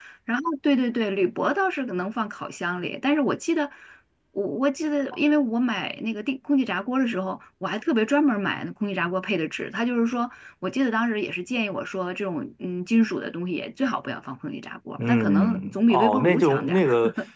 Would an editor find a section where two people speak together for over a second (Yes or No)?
Yes